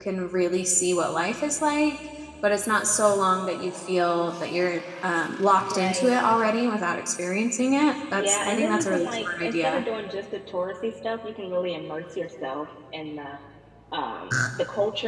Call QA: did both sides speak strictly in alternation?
No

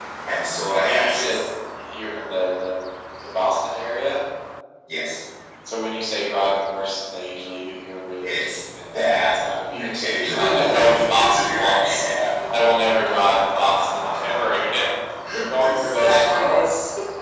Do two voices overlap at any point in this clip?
Yes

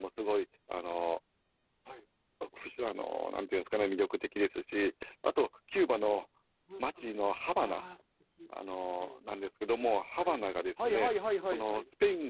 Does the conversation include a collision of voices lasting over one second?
No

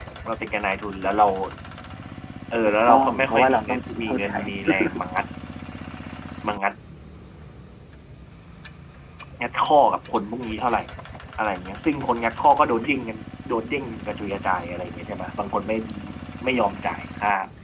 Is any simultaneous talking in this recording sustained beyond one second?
Yes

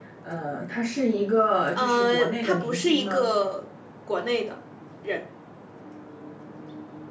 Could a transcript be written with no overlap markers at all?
No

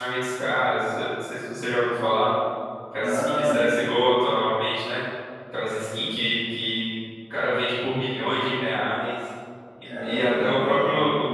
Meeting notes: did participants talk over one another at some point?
Yes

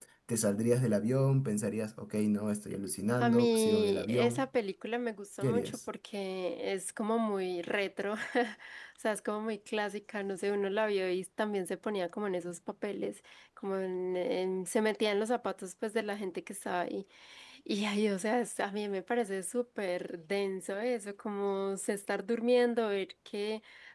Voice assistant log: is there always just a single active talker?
No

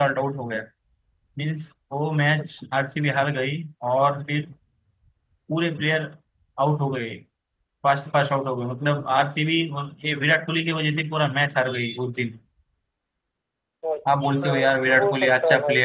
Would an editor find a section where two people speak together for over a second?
Yes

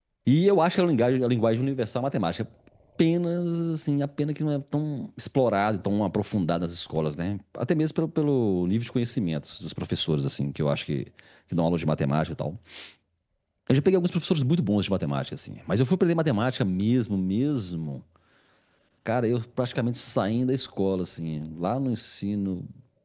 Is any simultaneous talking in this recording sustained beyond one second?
No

